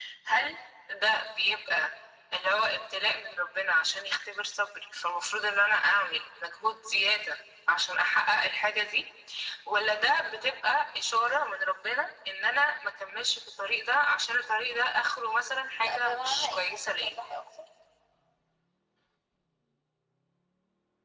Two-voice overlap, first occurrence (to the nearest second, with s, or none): 16 s